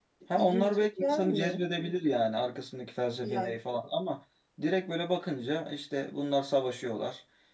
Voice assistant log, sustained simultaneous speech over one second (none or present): present